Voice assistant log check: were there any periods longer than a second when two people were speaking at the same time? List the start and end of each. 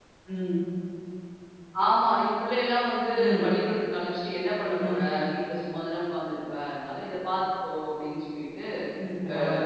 none

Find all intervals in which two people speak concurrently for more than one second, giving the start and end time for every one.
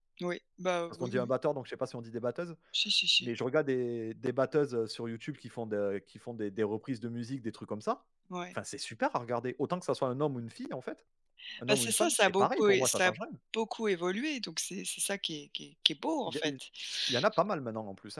11.7-13.1

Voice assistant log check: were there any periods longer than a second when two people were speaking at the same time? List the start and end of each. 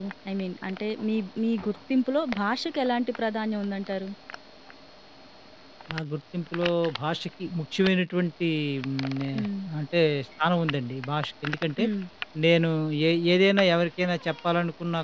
none

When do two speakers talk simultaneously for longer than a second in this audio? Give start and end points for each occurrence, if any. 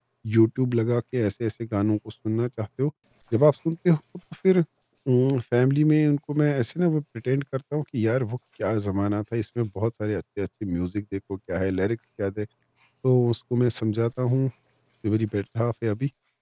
none

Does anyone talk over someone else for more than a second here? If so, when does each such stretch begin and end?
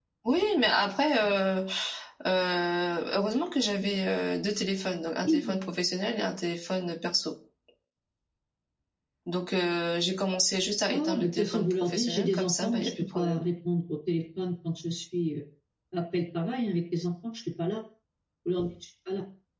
10.9-13.4

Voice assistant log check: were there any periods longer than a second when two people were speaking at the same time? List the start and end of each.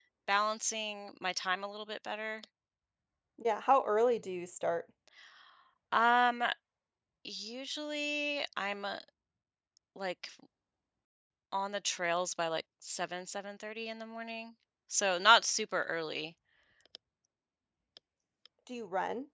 none

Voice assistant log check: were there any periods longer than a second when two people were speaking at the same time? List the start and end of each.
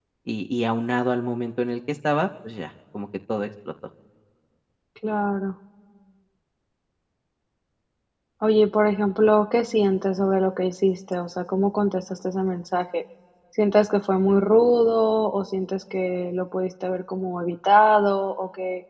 none

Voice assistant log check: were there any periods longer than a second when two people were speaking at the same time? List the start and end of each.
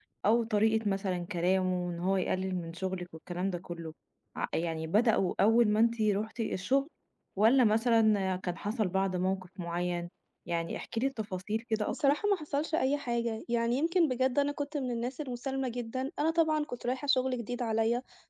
none

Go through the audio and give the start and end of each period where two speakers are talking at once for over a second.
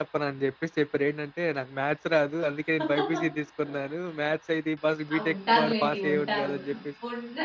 5.2-6.5

